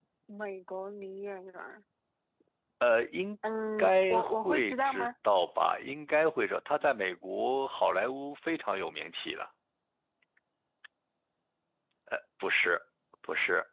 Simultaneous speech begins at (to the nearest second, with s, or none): 4 s